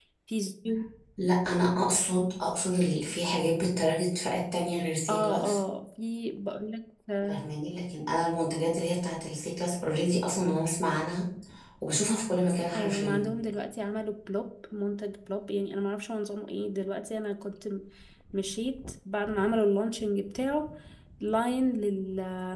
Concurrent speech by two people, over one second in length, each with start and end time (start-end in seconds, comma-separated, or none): none